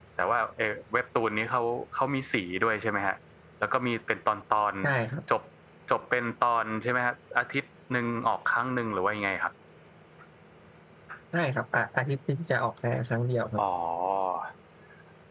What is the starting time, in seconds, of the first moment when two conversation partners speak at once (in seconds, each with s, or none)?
none